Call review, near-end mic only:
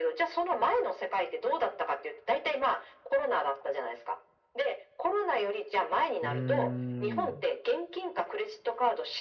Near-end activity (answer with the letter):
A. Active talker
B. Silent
A